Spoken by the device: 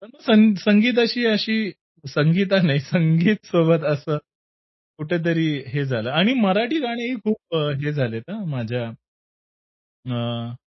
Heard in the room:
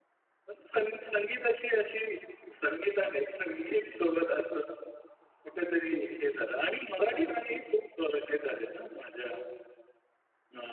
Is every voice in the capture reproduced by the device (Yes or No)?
Yes